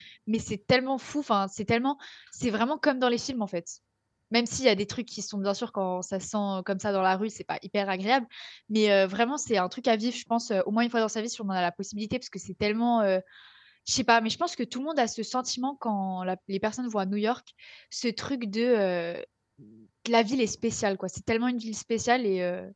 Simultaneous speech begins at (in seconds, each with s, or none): none